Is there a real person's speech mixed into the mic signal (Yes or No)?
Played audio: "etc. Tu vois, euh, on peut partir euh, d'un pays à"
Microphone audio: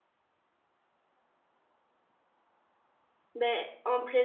Yes